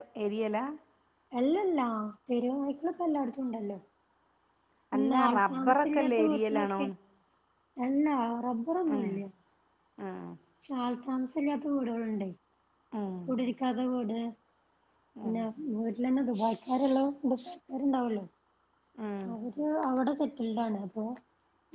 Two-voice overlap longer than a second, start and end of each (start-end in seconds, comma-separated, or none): 4.9-6.9